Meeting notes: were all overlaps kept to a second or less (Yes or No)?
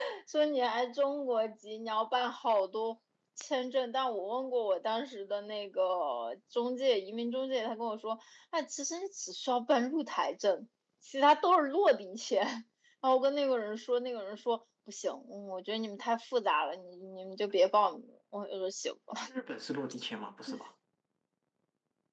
Yes